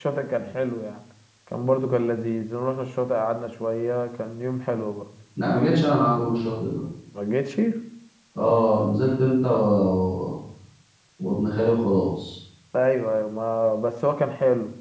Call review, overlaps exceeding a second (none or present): none